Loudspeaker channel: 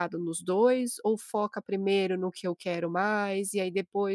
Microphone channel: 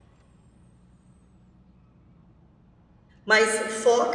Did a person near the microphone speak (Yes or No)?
Yes